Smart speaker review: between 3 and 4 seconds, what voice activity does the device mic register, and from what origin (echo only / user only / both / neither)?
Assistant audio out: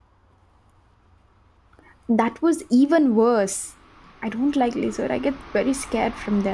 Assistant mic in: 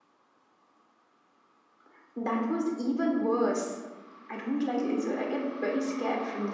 echo only